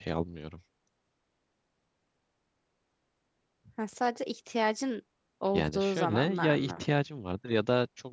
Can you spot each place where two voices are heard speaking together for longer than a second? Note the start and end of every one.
5.5-6.8

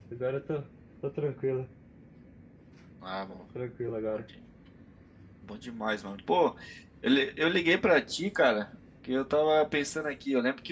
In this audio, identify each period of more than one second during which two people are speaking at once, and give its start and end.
none

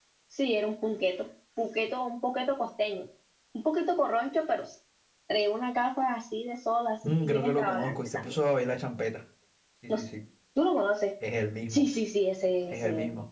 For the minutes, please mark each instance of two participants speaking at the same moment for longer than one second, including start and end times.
7.0-8.4

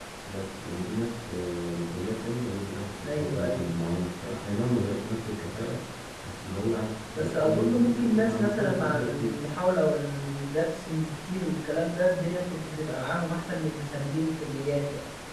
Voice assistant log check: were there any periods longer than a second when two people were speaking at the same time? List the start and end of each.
7.1-9.4

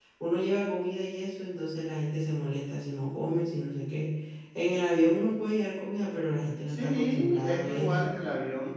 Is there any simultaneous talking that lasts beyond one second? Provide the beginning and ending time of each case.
6.7-8.2

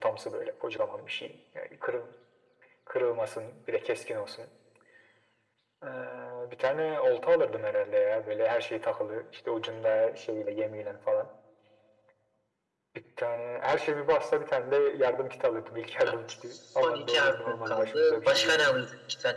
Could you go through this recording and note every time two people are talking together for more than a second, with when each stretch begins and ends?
16.8-18.8

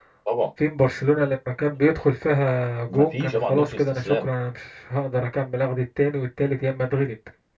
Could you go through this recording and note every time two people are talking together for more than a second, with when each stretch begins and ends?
2.9-4.3

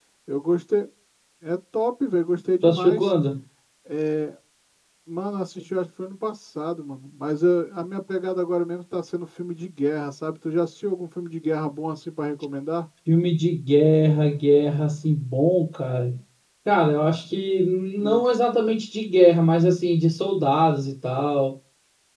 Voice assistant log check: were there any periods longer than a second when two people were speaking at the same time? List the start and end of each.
none

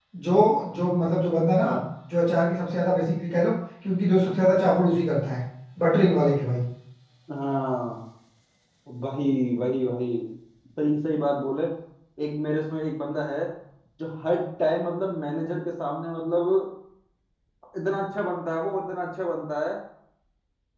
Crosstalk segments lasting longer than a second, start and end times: none

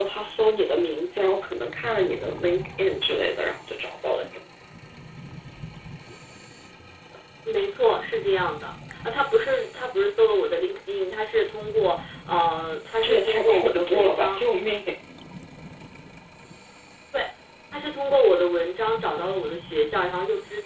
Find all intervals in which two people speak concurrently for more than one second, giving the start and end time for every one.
13.0-14.4

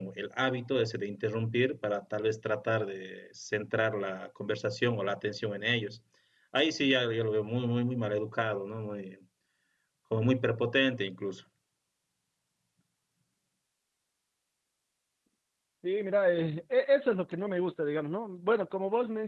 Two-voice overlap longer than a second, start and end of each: none

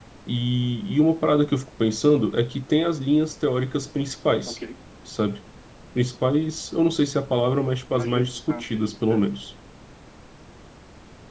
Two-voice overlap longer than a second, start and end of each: 7.9-9.2

